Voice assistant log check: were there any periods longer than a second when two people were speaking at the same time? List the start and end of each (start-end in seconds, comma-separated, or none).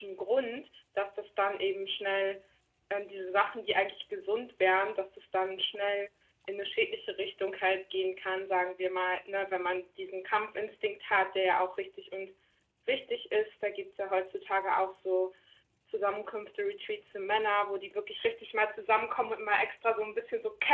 none